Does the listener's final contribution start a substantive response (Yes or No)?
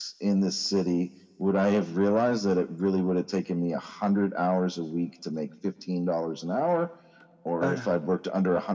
No